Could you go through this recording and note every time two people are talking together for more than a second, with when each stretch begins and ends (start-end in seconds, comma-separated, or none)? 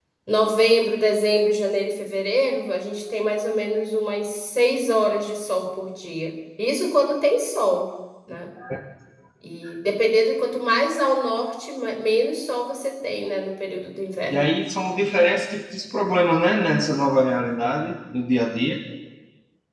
none